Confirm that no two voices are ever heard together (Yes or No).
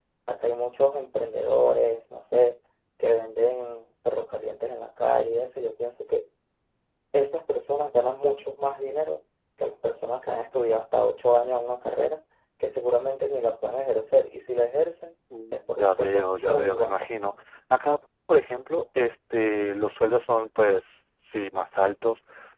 No